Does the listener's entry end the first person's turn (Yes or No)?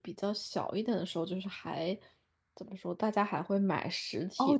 Yes